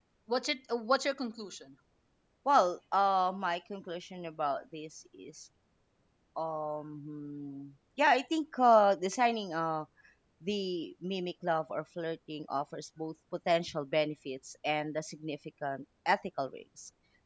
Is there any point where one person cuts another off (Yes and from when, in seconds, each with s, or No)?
No